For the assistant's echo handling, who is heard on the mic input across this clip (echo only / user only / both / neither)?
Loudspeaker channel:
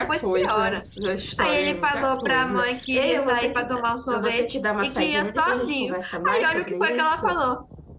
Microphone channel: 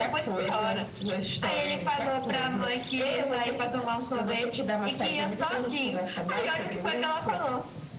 echo only